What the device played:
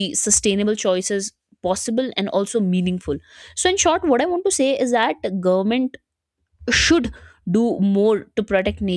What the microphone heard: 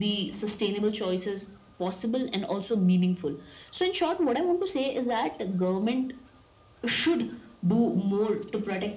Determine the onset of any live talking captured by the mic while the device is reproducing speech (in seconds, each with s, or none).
none